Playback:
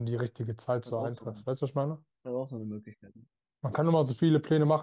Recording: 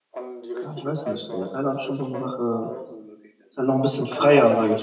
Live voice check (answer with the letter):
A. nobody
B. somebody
B